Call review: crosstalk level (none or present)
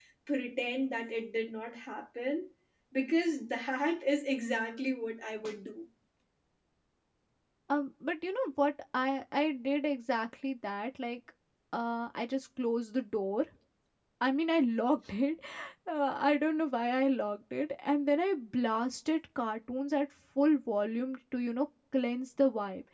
none